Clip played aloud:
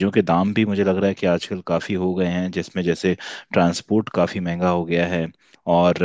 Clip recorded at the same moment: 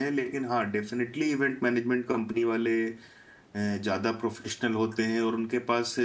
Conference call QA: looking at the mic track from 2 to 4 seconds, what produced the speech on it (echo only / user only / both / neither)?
user only